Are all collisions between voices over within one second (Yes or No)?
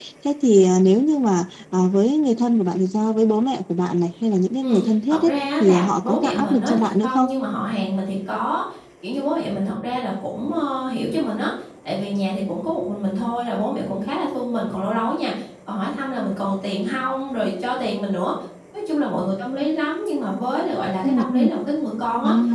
No